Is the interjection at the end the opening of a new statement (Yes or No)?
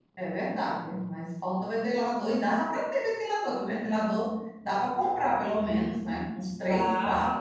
Yes